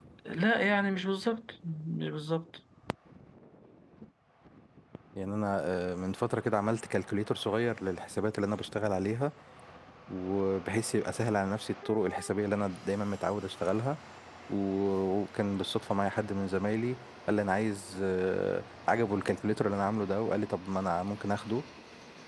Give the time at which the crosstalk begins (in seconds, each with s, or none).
none